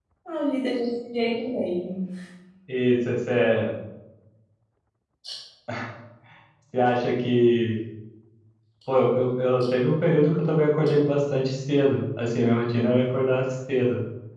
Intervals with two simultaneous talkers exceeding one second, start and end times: none

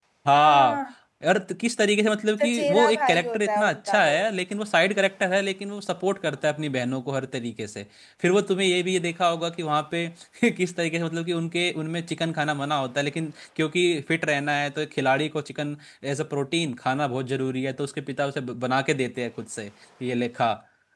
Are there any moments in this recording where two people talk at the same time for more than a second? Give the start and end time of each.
2.4-4.2

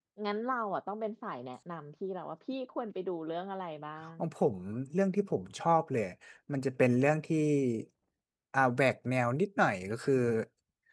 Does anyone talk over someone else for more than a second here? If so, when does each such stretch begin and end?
none

